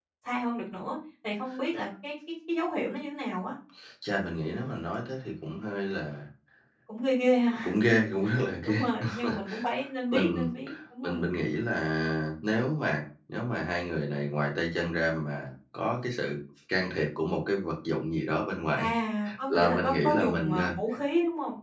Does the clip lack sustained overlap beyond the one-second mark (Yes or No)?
No